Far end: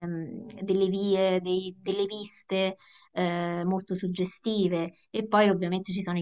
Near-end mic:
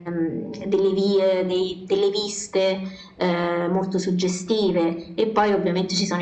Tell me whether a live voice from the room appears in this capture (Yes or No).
No